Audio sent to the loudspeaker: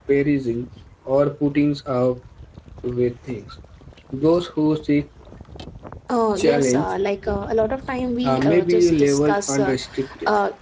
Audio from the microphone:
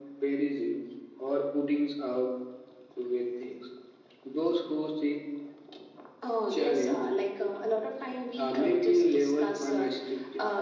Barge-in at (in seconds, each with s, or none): none